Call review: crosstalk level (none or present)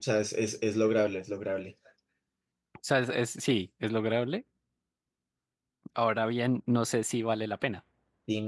none